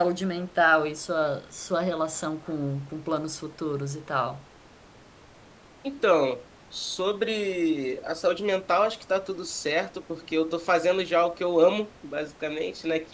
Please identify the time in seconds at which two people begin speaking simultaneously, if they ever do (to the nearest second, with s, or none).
none